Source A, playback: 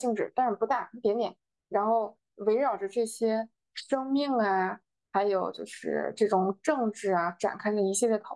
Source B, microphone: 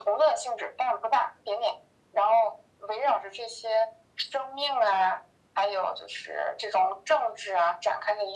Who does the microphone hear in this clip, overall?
echo only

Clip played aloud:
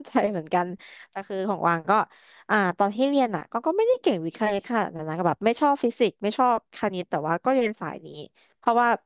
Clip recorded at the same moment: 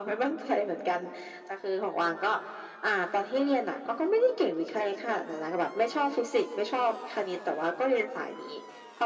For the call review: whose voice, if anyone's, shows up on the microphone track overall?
echo only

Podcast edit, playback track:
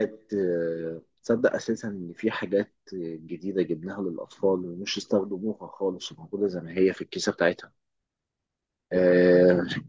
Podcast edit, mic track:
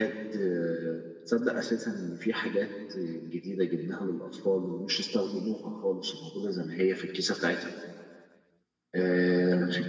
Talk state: echo only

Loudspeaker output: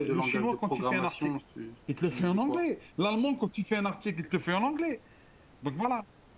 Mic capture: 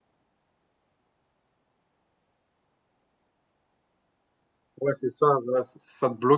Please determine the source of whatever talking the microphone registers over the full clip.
user only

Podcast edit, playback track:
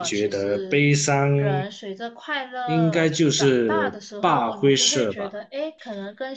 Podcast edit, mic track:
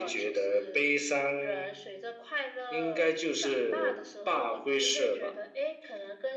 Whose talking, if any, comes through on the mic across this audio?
echo only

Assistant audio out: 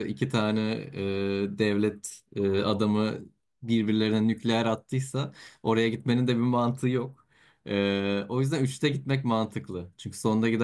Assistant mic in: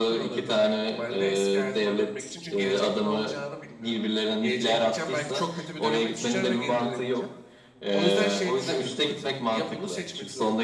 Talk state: both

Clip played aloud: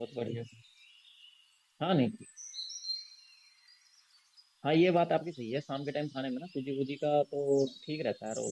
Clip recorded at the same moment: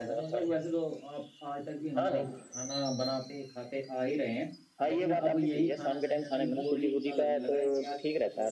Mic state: both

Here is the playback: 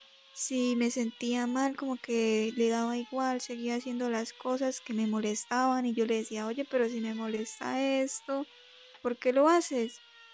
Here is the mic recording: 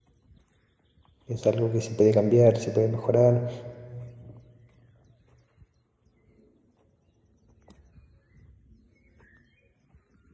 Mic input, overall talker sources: user only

